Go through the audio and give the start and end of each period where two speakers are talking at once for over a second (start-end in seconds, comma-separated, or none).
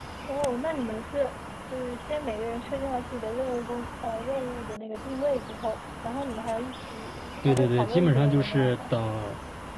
7.4-8.8